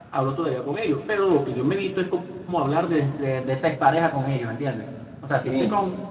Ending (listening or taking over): listening